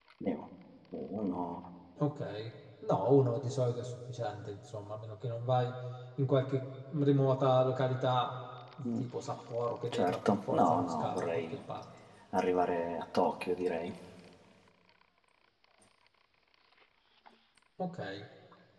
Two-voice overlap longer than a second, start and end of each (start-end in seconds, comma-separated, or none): 9.9-11.6